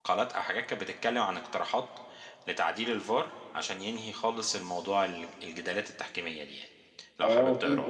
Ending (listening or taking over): taking over